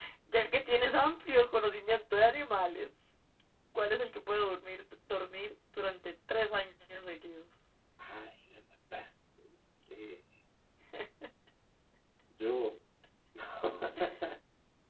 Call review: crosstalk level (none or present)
none